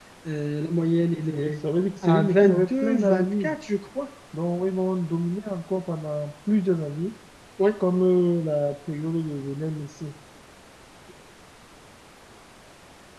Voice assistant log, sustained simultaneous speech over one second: present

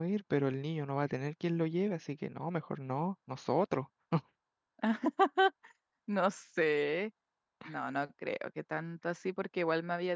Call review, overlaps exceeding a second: none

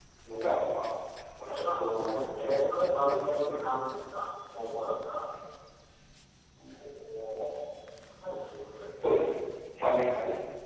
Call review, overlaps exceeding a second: present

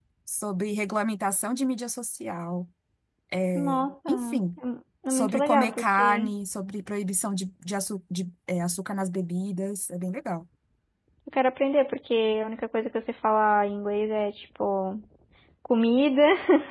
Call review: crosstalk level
present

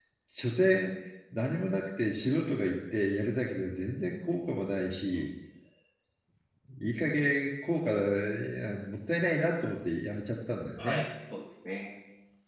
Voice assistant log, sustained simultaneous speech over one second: none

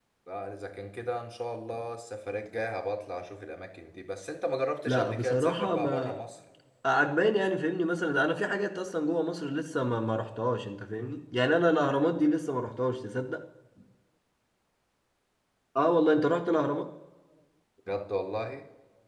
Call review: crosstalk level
present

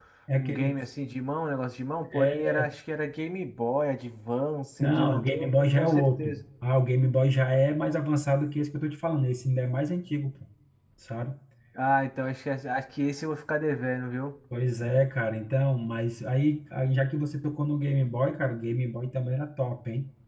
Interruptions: present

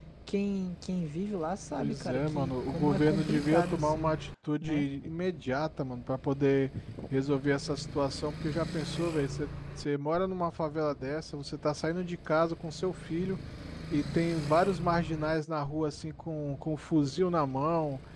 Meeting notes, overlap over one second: present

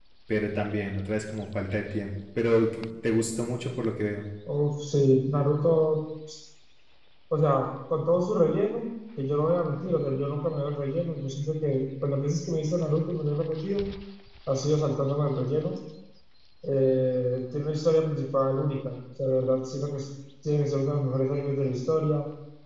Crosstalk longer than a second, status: none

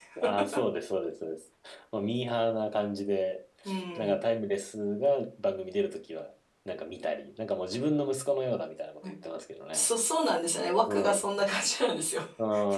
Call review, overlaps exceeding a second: none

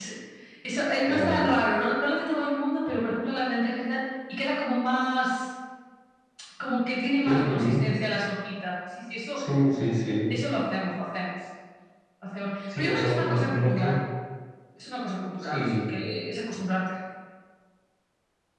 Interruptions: present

